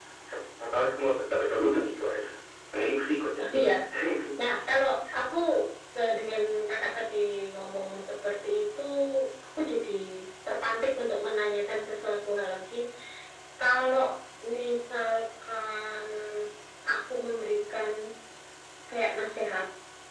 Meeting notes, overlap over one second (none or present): none